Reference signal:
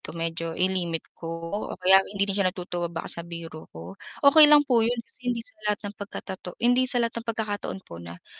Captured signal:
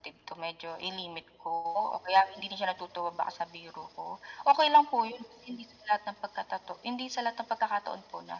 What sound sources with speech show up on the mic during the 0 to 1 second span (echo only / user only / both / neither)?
echo only